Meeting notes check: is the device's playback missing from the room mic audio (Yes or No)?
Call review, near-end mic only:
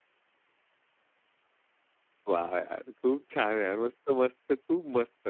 Yes